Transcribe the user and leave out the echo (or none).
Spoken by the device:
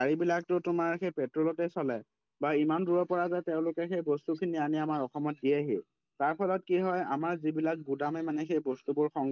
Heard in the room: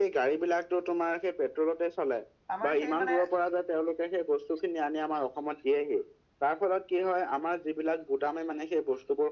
আমাৰ সেই মানে-